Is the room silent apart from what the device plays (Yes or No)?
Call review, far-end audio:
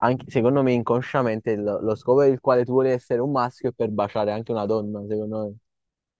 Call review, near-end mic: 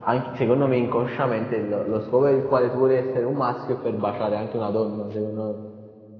Yes